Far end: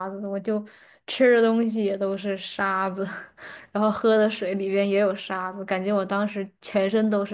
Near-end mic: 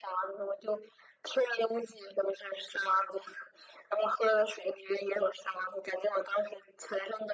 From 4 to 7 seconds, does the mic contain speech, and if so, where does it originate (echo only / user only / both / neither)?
echo only